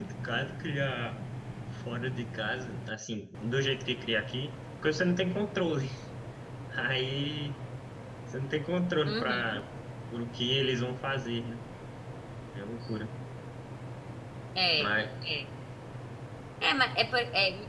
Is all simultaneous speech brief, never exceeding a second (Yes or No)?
Yes